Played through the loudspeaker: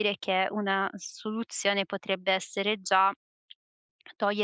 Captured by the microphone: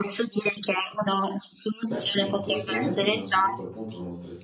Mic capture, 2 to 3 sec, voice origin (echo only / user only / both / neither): both